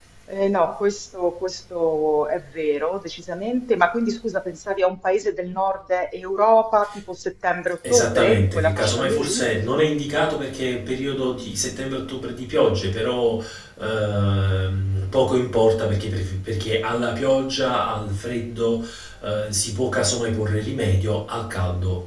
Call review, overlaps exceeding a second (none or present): present